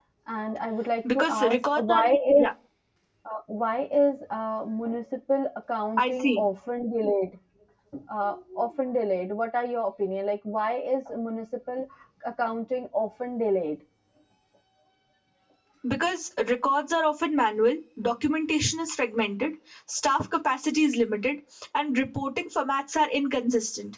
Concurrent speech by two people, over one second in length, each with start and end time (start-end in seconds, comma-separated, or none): 1.1-2.5